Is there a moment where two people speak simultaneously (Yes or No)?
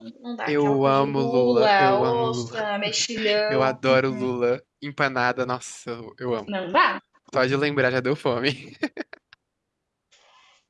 Yes